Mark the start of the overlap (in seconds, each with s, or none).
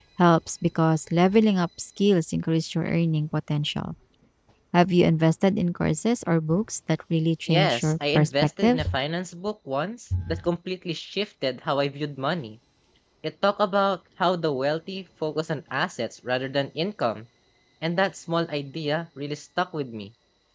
7.5 s